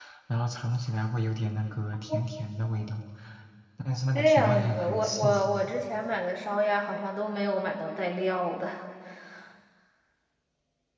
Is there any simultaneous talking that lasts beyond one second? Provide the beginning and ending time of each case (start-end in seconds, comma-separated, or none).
4.1-5.6